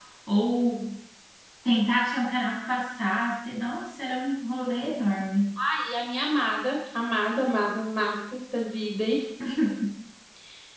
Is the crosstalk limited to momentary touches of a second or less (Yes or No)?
Yes